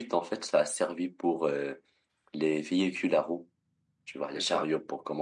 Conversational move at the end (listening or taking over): listening